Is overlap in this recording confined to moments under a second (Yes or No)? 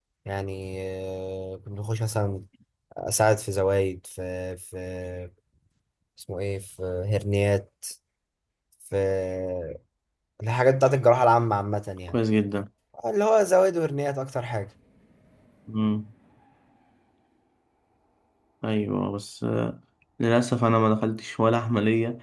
Yes